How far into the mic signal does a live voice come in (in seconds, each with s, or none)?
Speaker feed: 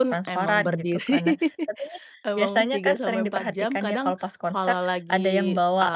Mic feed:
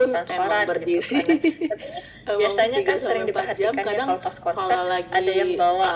none